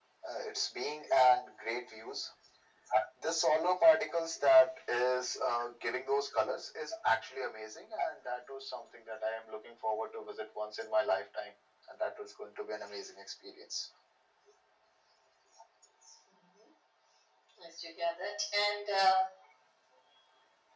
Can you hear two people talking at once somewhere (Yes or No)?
No